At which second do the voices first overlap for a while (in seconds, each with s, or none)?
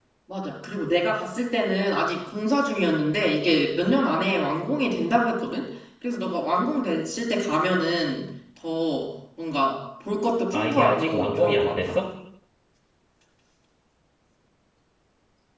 10.5 s